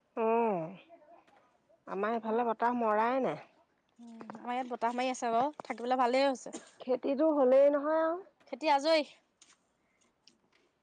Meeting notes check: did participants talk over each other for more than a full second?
No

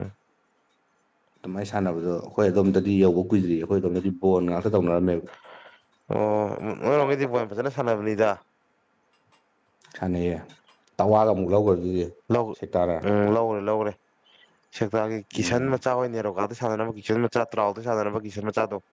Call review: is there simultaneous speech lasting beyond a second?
No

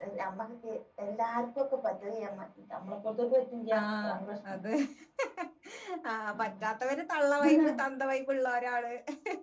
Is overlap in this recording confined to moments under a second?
Yes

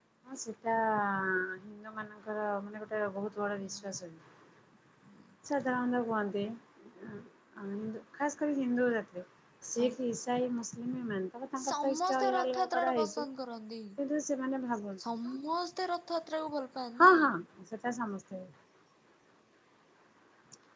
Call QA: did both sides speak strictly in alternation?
No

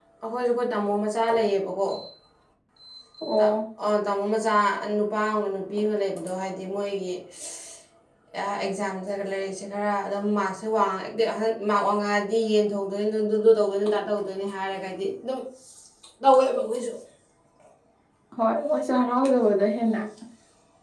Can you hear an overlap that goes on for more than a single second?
No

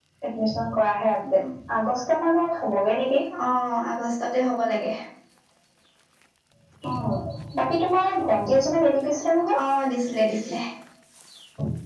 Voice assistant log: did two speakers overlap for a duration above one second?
No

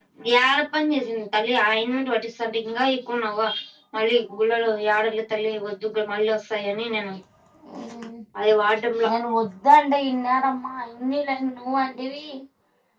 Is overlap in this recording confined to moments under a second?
Yes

